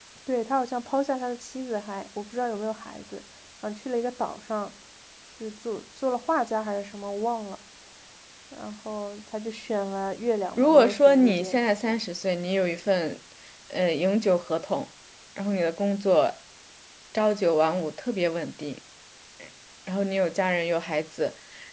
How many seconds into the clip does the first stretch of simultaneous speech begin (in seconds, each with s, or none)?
10.6 s